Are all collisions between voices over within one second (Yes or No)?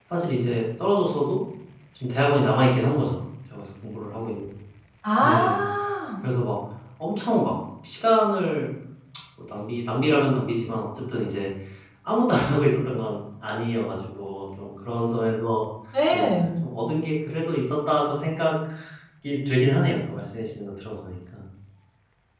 Yes